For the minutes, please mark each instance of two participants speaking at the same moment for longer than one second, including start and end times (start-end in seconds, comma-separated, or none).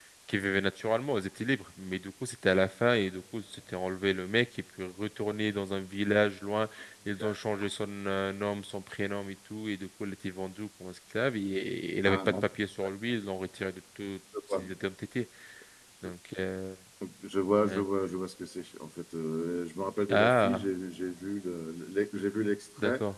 none